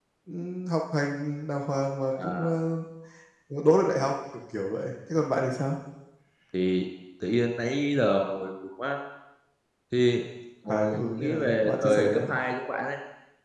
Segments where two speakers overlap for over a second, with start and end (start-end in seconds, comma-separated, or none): 10.6-12.2